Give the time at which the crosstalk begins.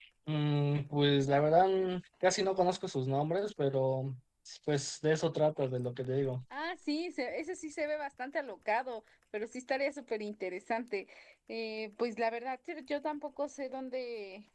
none

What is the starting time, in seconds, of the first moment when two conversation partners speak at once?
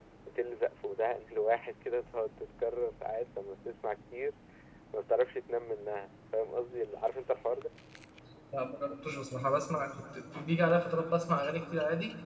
none

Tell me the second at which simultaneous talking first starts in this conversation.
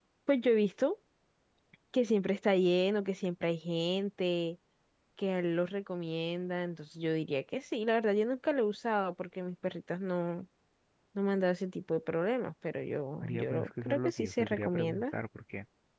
13 s

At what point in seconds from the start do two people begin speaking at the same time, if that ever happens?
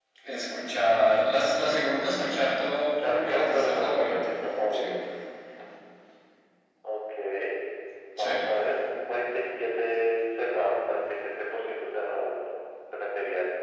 3 s

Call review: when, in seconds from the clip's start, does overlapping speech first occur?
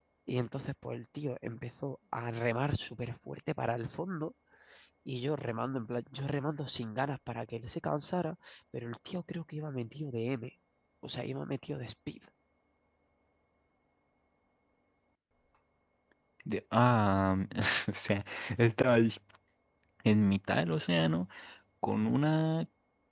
none

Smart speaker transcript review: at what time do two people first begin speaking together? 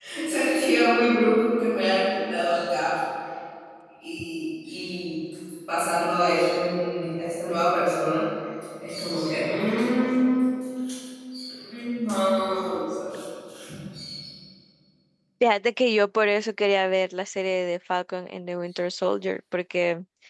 none

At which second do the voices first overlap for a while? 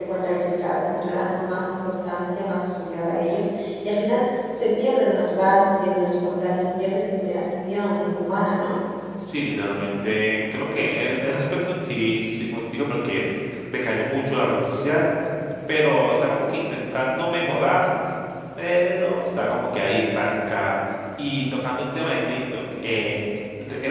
none

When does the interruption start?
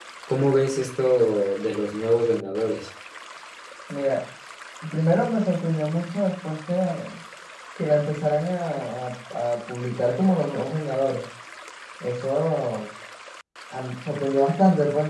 none

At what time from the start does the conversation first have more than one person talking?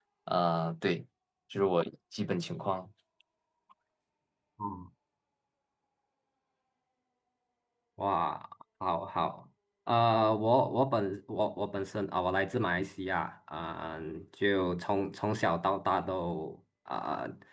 none

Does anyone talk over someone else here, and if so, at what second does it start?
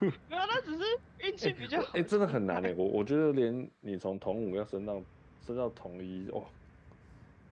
1 s

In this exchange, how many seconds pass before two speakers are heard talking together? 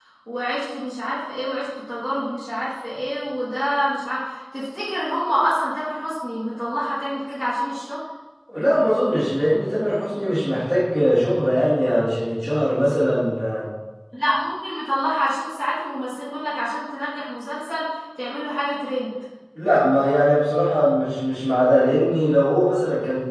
none

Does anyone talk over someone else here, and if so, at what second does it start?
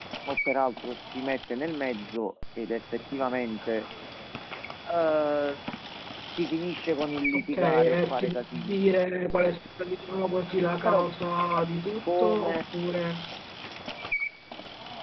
7 s

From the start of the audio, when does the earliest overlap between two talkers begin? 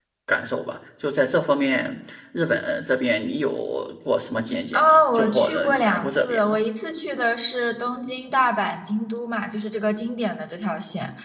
5 s

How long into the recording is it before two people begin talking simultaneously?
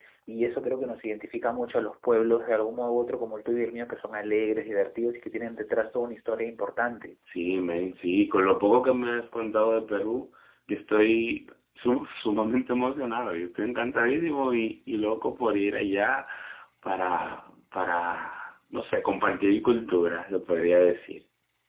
none

